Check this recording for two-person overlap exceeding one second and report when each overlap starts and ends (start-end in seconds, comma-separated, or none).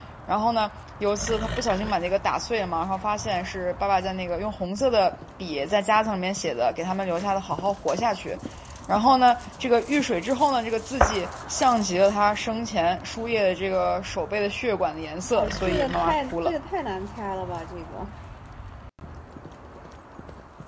15.2-16.6